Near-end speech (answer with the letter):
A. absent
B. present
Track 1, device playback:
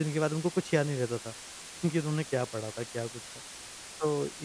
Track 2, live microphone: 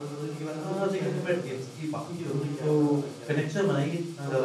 B